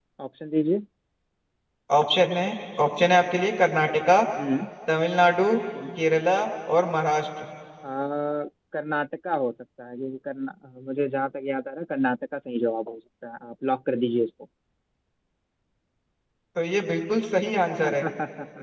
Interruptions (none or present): none